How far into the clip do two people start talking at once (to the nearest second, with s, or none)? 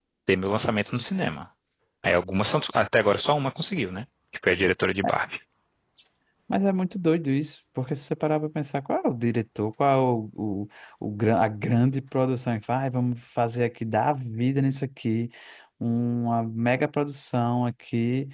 none